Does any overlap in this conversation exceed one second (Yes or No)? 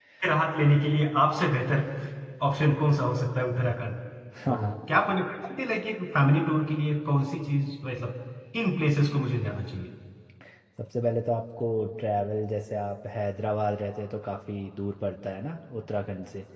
No